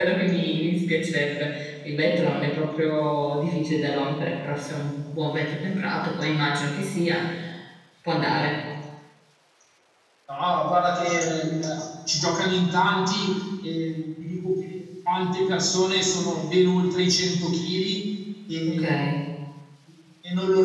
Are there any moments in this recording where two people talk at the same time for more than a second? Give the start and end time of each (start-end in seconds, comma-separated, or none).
none